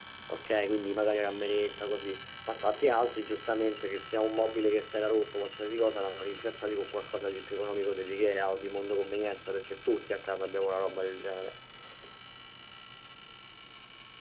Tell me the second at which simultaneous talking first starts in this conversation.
none

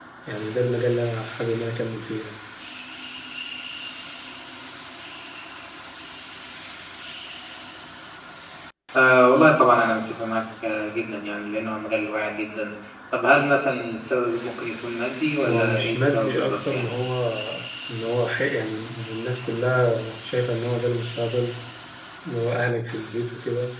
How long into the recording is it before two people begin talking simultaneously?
15.4 s

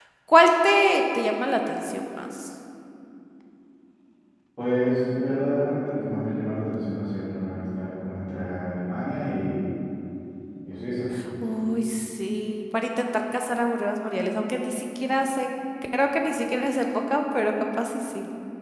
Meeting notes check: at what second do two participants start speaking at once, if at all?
none

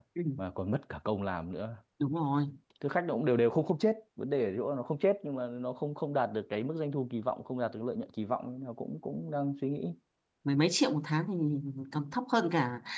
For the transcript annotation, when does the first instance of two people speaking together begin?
none

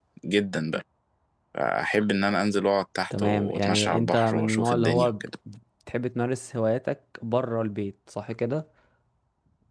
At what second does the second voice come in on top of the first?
3.1 s

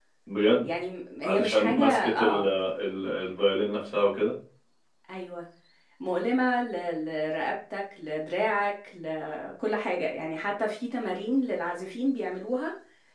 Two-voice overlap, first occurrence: 1.2 s

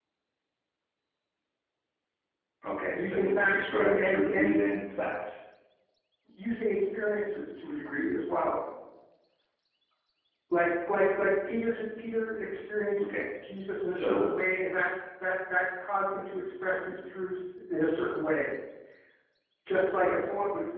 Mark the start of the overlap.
2.9 s

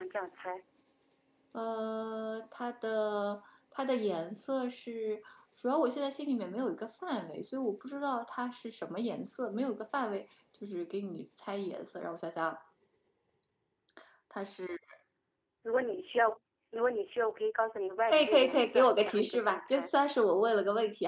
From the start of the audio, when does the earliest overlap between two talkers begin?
18.1 s

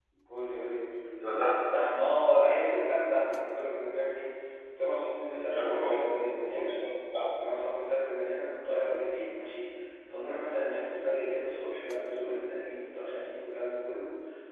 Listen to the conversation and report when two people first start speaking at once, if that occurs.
5.5 s

